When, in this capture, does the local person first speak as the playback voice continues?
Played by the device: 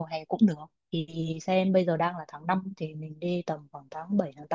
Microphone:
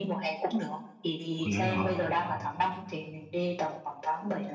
1.4 s

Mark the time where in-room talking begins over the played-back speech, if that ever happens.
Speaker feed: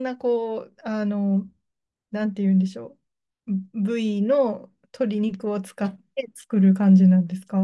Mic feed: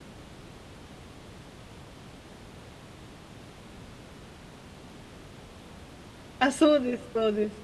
6.4 s

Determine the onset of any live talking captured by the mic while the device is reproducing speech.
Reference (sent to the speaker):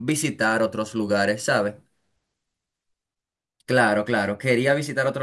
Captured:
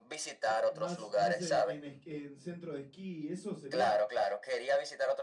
0.4 s

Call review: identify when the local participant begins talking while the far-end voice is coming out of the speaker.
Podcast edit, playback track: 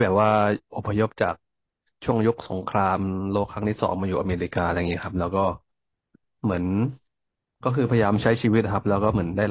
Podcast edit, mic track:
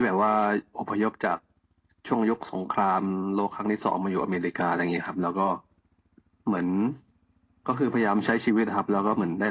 none

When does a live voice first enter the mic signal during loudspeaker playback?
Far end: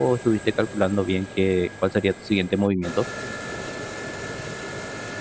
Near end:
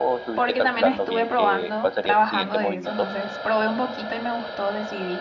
0.3 s

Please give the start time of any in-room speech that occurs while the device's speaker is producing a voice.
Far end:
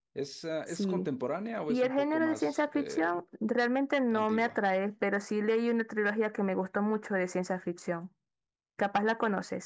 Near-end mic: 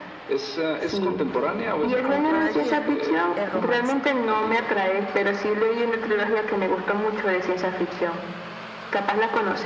1.8 s

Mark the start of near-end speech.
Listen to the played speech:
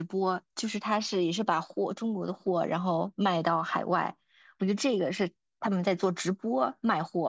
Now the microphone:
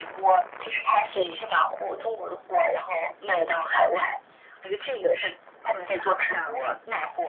6.2 s

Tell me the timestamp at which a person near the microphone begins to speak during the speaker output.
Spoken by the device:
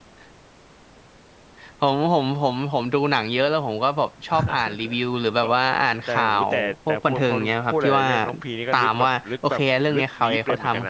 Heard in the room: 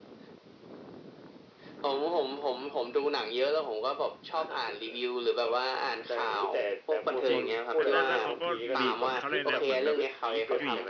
7.3 s

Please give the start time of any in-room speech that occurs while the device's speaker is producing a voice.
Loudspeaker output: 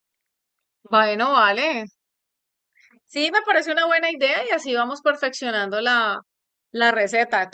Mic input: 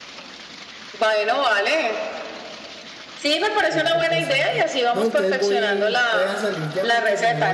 3.7 s

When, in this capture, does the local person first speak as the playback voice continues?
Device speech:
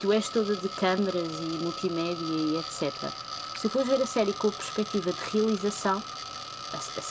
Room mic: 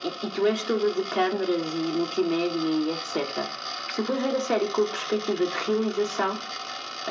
none

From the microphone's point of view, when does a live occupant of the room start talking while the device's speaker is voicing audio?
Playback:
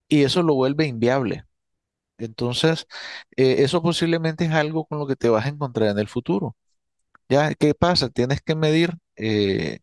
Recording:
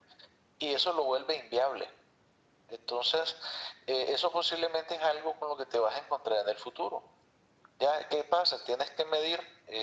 none

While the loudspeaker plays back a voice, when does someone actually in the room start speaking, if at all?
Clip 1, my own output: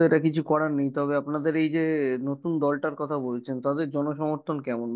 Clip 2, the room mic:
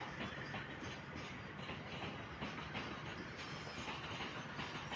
none

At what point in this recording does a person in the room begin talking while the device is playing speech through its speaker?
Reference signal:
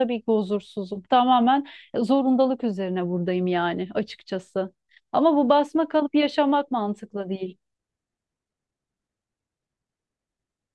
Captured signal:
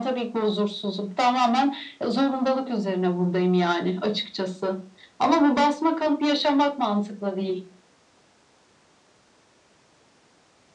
none

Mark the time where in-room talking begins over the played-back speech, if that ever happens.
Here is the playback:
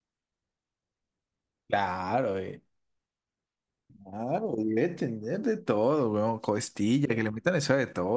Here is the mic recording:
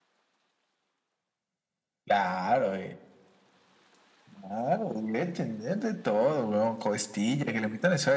none

